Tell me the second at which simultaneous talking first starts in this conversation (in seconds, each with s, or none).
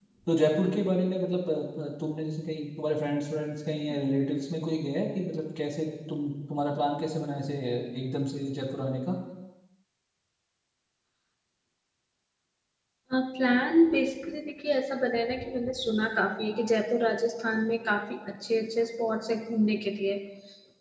none